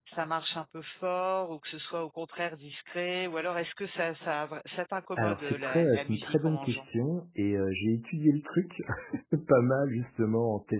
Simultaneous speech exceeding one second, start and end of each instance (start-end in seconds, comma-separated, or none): 5.2-6.8